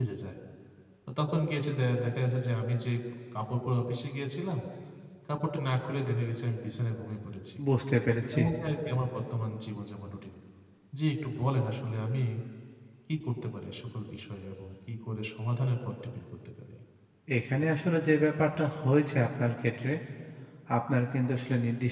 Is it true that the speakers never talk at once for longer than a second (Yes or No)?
Yes